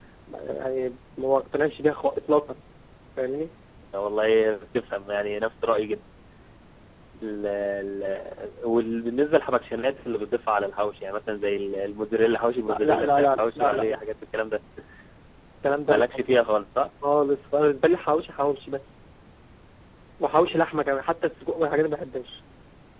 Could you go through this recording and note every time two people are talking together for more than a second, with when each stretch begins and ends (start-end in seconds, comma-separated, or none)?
12.7-14.0